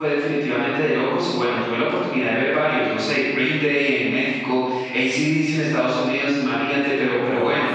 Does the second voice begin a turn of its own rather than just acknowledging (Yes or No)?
No